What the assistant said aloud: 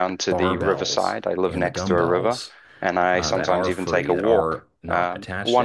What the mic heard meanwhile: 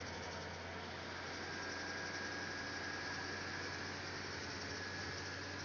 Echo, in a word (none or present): none